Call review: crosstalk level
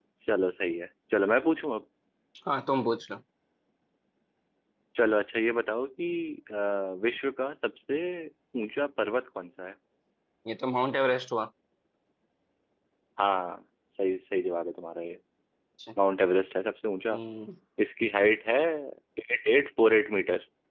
none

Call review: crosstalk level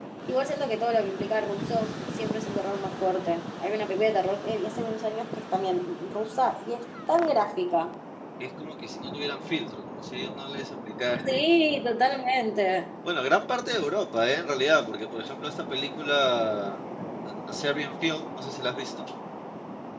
none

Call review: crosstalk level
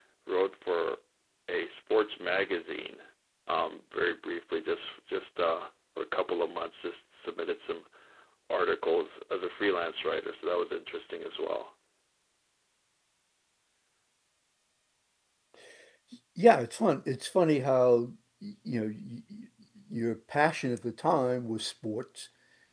none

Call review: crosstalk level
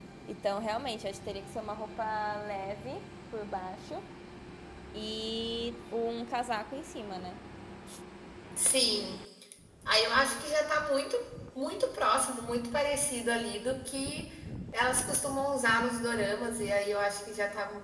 none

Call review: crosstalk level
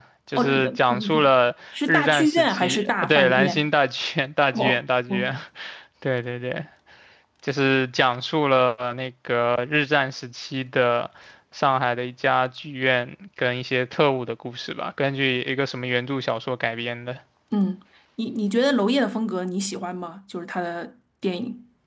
present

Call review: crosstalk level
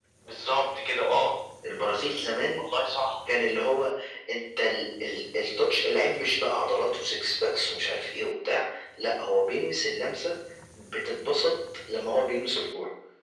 none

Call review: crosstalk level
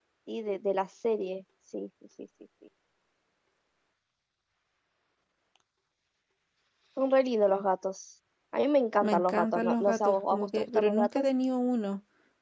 present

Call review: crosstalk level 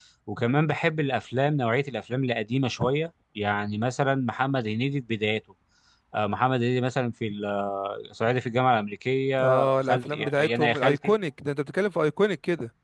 present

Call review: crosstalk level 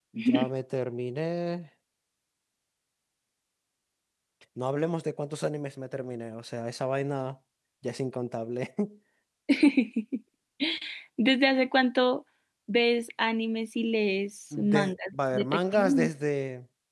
present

